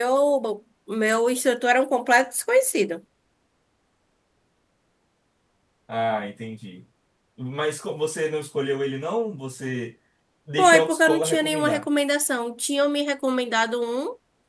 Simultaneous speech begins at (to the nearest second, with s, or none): 11 s